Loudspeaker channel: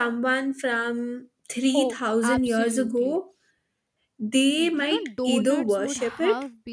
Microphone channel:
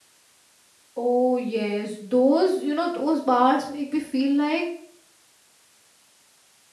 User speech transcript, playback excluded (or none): Oh, yes, those, you know, those bars make me feel like